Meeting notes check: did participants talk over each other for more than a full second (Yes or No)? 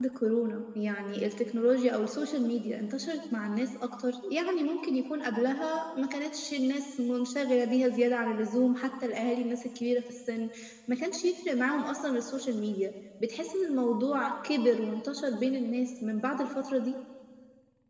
No